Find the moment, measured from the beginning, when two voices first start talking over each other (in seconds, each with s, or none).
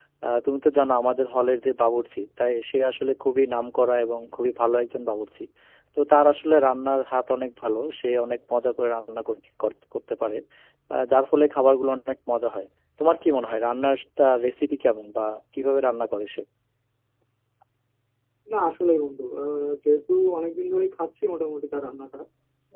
none